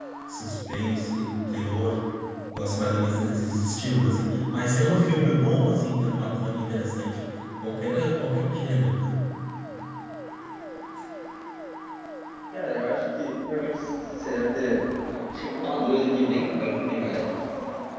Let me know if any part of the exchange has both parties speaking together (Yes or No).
No